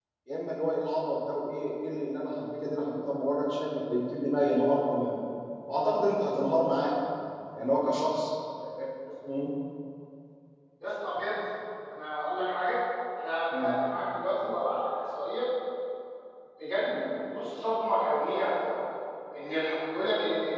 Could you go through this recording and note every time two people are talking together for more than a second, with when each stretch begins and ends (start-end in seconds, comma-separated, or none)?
none